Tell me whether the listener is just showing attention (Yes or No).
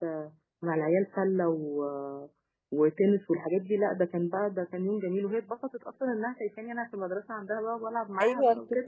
No